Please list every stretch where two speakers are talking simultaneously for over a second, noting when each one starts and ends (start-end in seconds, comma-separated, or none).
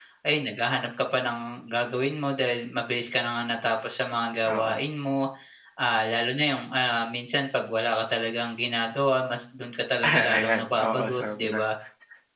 10.0-11.6